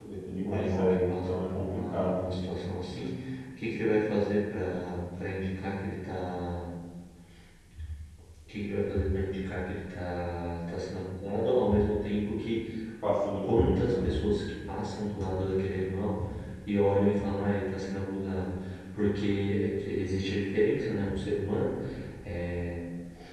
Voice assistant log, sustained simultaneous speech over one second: present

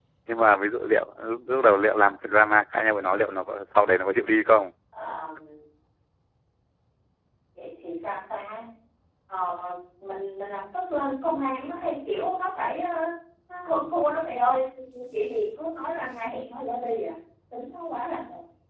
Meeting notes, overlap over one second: none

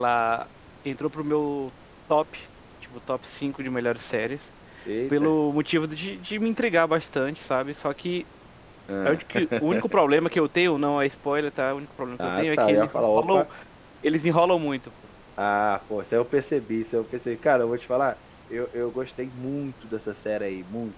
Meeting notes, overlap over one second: present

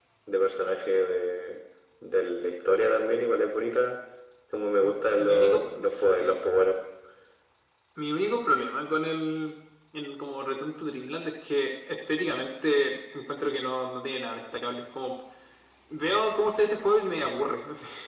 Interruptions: present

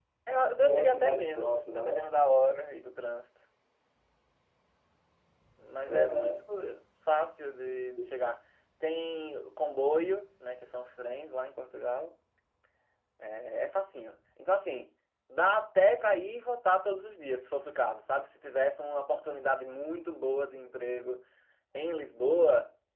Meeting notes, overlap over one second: present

